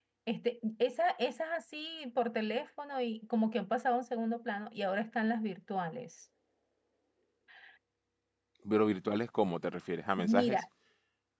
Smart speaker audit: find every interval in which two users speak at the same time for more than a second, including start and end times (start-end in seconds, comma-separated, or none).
none